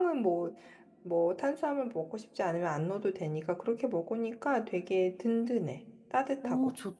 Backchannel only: No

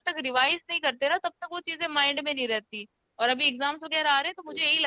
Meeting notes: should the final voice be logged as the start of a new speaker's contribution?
No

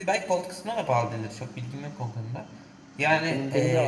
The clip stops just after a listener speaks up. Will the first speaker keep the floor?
No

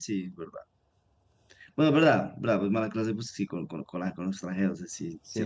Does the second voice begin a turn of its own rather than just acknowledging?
Yes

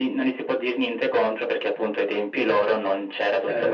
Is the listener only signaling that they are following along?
Yes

